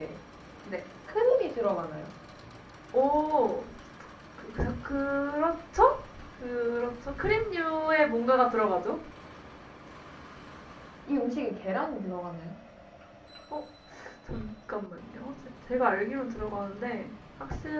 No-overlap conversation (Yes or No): Yes